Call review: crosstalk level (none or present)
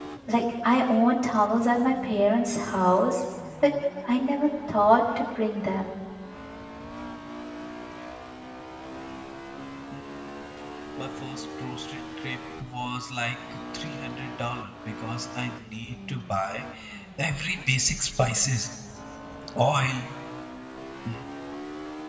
none